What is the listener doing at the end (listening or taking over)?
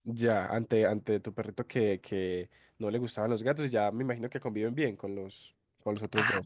taking over